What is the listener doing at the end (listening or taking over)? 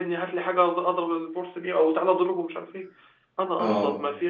listening